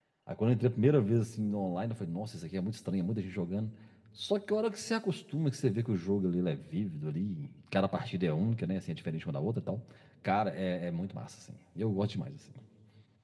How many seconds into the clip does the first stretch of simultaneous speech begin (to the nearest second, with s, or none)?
none